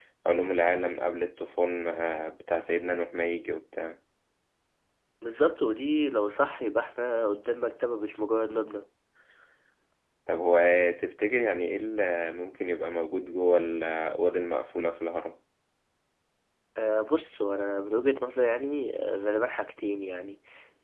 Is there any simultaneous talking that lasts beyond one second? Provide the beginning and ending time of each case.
none

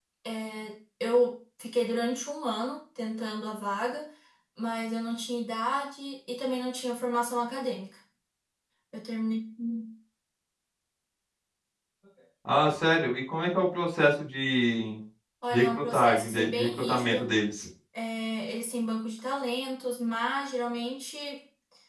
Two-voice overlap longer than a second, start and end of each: 15.5-17.4

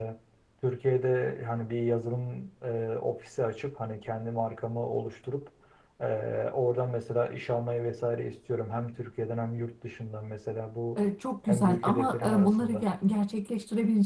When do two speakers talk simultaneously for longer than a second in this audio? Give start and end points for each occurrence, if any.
11.5-12.8

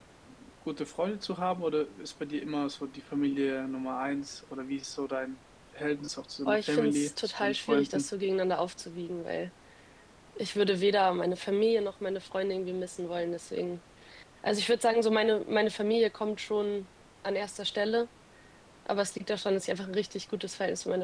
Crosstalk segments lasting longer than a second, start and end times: 6.5-8.1

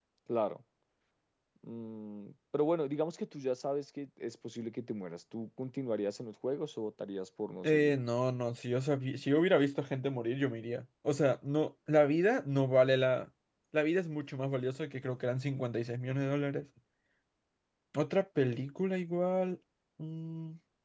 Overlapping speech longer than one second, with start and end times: none

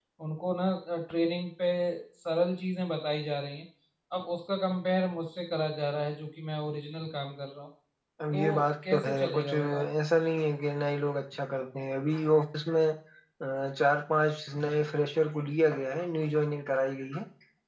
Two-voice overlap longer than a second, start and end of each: 8.3-9.8

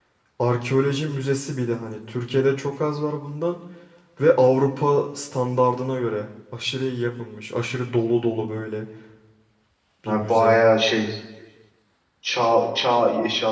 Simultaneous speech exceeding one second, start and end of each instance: none

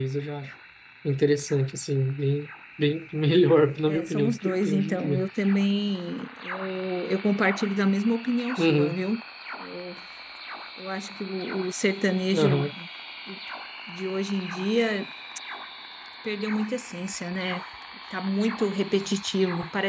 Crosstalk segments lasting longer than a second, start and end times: 3.9-5.2

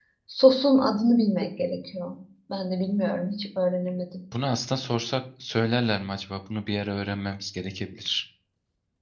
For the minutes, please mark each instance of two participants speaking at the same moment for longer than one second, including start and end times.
none

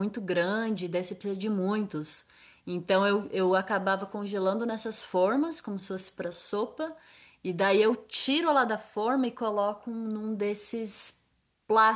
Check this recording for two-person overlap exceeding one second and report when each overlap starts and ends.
none

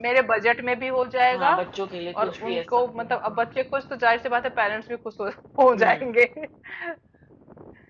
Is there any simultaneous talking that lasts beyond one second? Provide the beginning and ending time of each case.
2.2-3.5

